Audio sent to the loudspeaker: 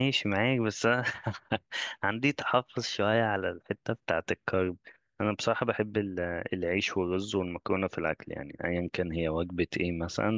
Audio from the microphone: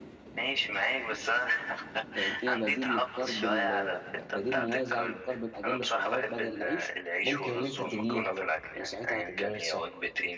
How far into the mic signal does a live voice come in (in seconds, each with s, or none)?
2.1 s